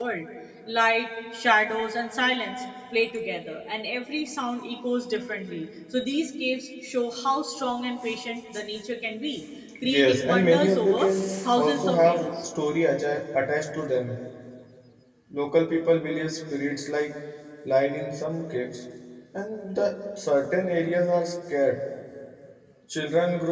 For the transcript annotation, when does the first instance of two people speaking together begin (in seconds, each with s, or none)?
9.8 s